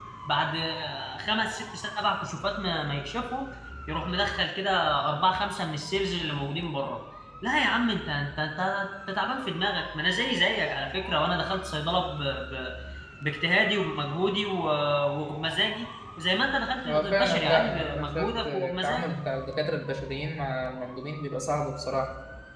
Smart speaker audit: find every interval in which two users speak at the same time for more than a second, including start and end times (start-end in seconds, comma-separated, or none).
16.9-19.1